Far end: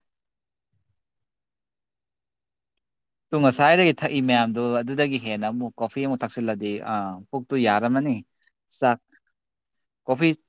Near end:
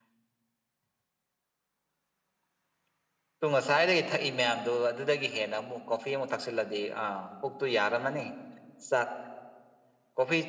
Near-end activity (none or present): none